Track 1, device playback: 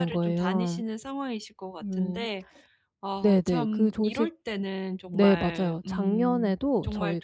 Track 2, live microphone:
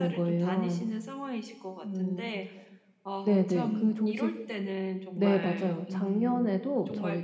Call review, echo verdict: present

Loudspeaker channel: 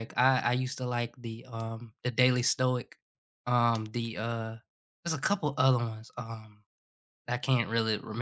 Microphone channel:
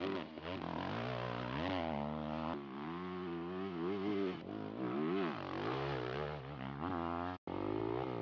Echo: none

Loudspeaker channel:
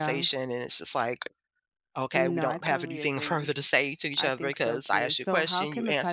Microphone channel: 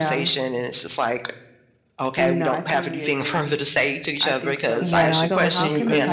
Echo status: present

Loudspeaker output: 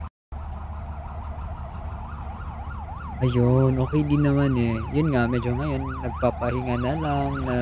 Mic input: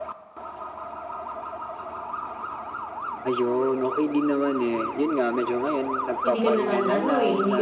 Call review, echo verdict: present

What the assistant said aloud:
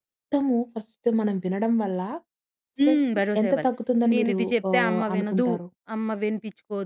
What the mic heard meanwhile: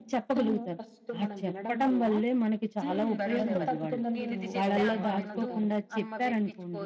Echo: present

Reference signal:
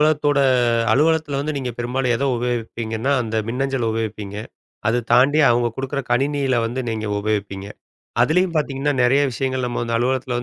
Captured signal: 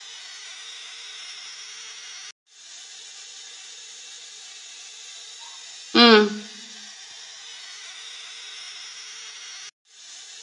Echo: none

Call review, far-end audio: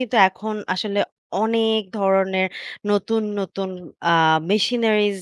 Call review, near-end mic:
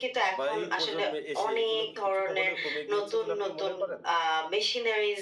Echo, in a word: present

